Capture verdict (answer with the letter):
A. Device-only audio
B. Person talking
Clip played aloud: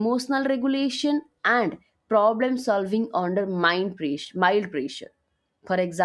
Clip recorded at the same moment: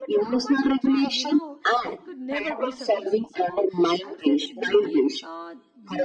B